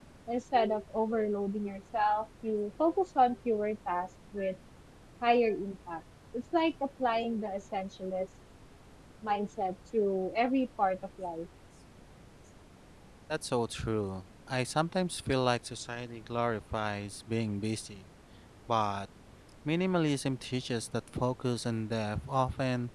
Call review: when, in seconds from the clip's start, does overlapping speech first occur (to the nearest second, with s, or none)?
none